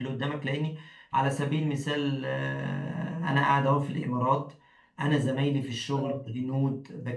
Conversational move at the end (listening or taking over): listening